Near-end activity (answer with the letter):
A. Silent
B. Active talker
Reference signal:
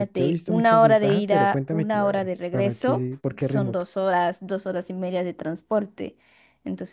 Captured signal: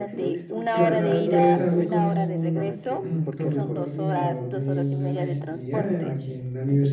B